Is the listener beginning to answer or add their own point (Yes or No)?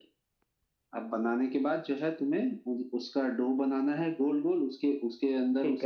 No